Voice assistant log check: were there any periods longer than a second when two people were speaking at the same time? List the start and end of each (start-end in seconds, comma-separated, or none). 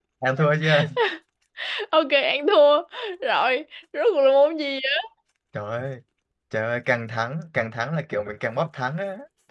none